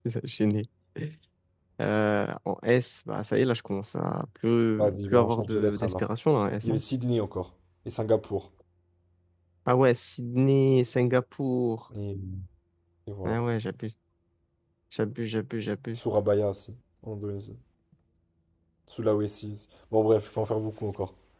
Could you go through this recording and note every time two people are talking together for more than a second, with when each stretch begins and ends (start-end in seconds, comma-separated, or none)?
4.8-6.0